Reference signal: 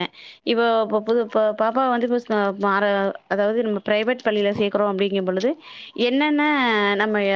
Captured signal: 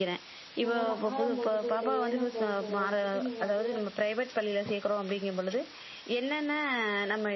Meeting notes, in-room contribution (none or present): present